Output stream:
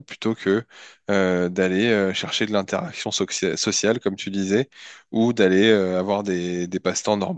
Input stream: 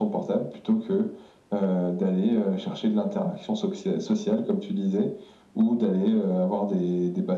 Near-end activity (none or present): none